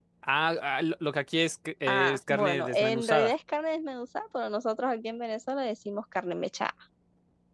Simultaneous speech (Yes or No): Yes